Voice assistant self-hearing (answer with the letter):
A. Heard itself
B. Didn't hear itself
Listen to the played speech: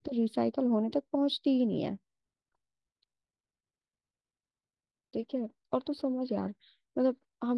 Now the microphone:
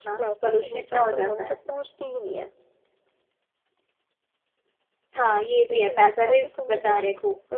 A